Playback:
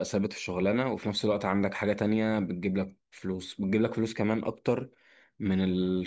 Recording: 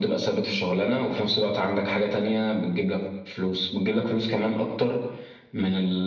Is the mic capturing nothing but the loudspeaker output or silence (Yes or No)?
Yes